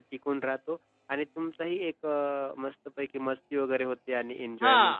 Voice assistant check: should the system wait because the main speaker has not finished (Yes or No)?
No